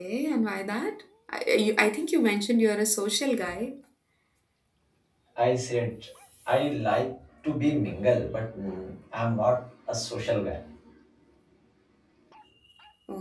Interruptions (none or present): none